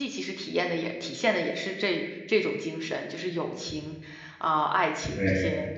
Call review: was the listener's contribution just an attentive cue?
No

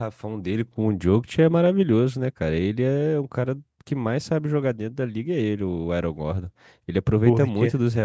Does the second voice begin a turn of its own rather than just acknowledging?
No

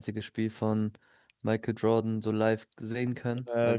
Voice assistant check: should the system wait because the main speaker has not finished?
Yes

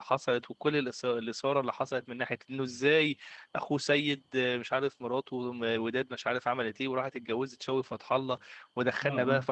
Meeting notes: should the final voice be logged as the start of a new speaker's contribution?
No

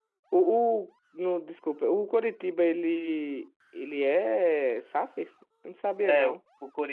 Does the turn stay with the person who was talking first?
No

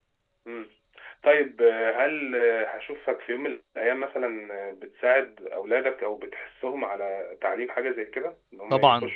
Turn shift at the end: Yes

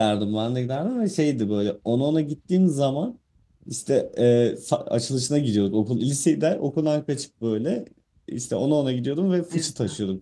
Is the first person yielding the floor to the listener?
No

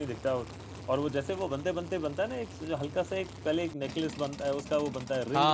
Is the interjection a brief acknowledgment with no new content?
No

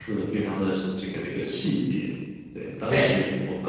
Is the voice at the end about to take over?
No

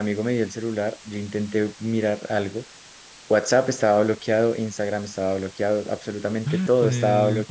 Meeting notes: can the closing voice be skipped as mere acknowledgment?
No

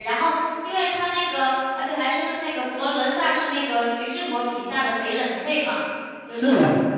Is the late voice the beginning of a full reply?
Yes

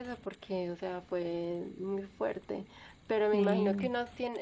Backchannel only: Yes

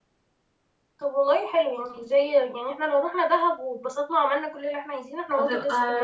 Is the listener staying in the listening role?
No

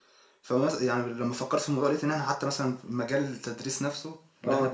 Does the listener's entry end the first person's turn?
No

